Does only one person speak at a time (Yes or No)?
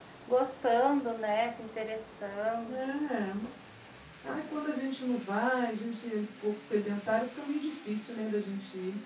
Yes